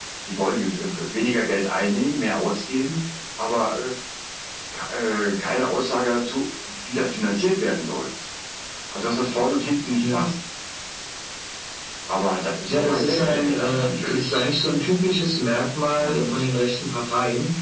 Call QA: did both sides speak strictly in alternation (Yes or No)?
No